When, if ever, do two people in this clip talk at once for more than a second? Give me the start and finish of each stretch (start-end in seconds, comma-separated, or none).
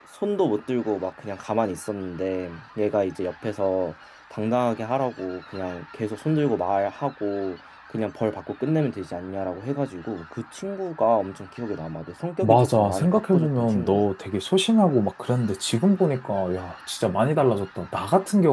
12.4-14.1